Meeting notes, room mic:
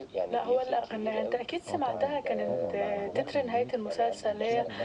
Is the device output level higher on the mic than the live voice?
Yes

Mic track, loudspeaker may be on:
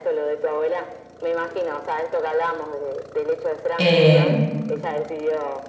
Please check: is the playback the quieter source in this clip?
Yes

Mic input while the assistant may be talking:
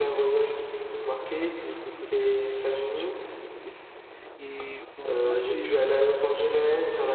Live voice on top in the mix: No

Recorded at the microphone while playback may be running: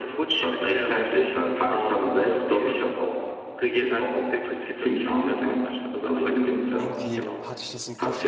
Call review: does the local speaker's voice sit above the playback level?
No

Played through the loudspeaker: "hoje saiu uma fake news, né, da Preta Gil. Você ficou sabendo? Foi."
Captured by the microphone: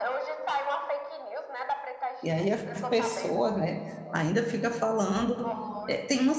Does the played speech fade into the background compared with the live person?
Yes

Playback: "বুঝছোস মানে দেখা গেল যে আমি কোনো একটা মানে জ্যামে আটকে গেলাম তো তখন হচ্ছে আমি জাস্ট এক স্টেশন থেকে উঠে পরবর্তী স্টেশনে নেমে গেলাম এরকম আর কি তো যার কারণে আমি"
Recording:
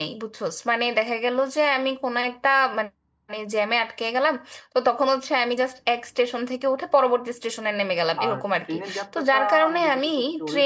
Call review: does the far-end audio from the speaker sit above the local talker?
Yes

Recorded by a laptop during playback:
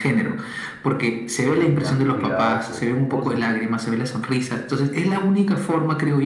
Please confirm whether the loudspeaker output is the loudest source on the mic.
Yes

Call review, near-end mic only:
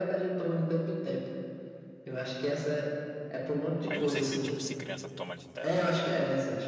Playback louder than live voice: Yes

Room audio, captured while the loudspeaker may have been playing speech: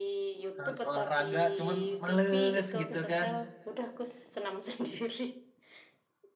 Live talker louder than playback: Yes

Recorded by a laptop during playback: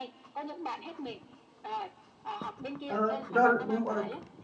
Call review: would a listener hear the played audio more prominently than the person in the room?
No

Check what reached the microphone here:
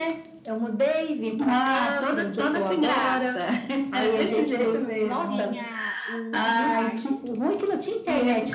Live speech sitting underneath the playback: Yes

